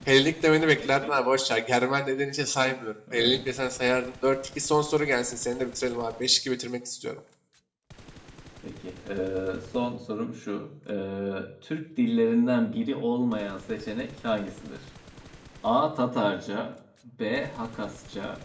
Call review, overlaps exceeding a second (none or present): none